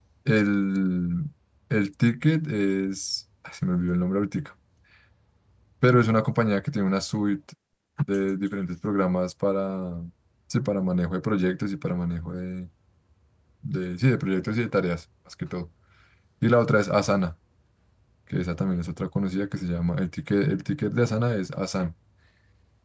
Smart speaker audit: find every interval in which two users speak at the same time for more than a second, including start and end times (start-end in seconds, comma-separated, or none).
none